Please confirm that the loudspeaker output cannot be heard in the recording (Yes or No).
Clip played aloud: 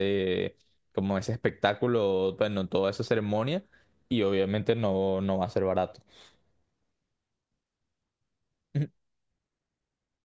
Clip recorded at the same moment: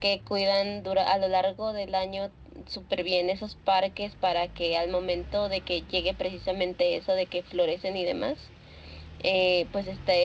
Yes